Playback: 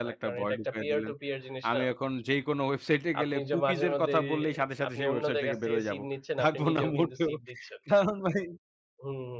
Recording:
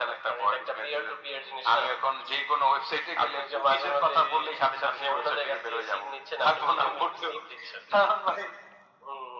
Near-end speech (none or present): none